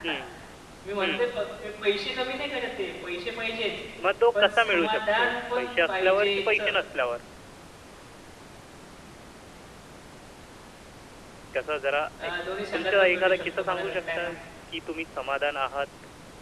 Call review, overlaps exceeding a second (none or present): present